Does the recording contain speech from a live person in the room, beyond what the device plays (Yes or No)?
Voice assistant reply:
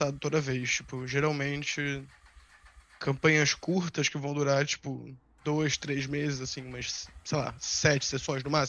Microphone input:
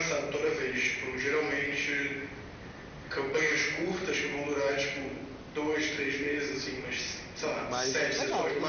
Yes